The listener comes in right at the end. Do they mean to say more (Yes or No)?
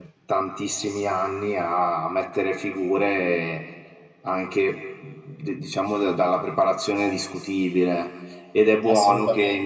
No